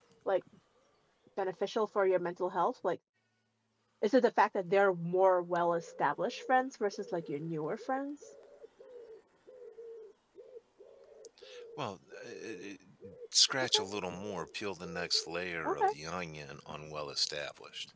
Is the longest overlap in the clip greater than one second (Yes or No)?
No